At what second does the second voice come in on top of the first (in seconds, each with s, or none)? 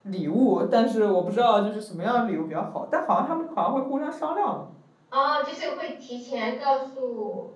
none